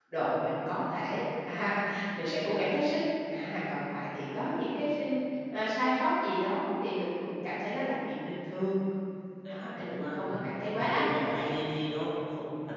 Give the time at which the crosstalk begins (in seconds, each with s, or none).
9.5 s